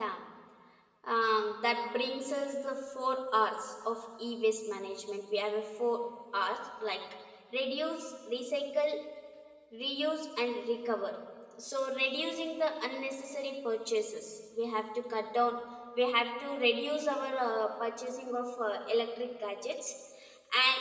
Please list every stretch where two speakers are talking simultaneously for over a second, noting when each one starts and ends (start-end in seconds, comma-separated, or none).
none